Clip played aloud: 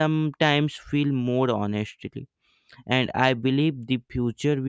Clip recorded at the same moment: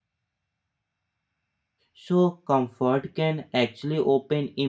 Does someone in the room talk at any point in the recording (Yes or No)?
Yes